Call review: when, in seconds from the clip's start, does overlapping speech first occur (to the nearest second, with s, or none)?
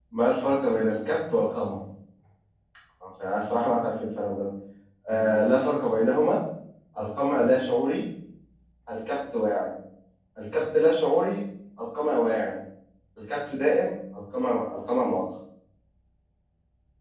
none